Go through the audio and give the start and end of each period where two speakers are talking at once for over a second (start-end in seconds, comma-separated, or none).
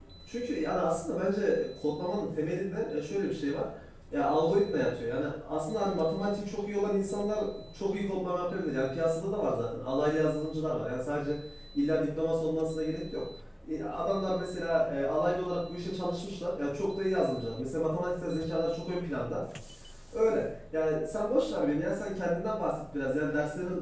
none